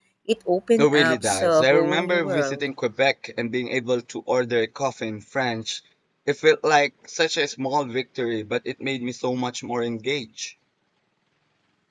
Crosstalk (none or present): present